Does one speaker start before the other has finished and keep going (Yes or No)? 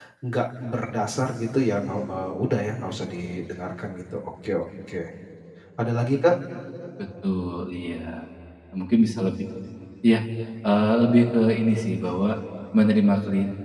No